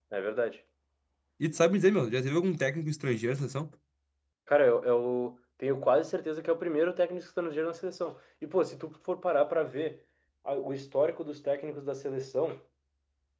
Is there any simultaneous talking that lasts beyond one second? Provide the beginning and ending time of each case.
none

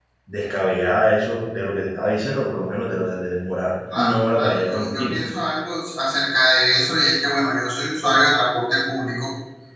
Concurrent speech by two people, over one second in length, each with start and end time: 4.0-5.2

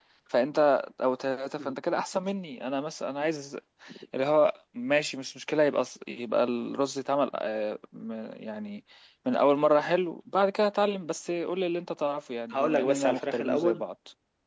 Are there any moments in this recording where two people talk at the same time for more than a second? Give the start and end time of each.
12.5-13.8

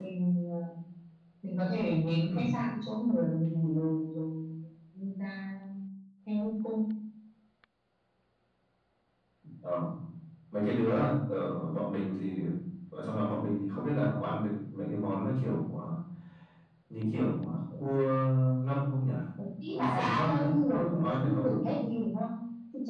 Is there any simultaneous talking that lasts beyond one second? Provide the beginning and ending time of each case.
19.7-21.6

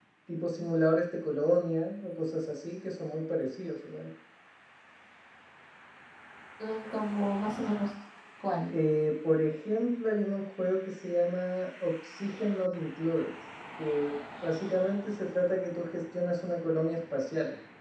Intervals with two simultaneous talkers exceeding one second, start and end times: none

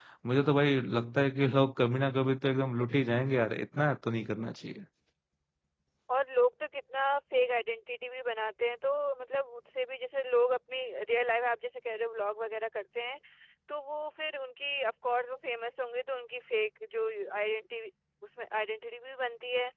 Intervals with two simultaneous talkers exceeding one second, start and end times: none

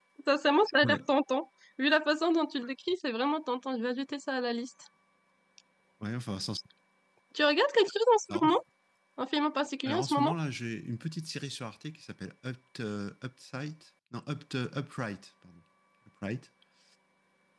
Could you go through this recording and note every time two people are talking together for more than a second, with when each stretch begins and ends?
none

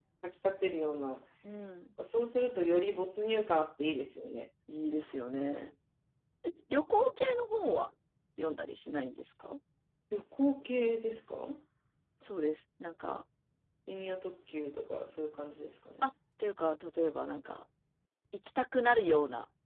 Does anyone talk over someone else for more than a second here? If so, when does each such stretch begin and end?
none

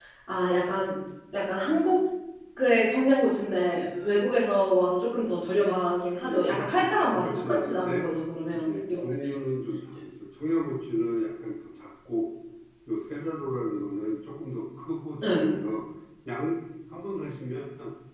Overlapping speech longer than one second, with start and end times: 6.3-8.0

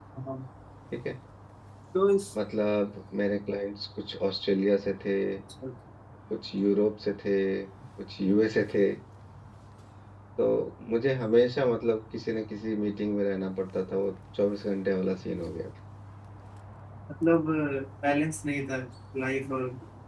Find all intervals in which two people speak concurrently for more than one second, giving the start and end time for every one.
none

